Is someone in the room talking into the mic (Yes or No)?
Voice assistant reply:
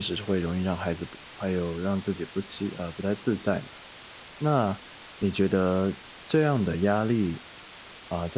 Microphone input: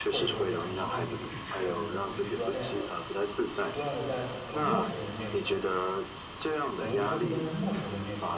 Yes